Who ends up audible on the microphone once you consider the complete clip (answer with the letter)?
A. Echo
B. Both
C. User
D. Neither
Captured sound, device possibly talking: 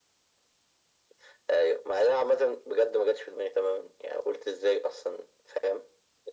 A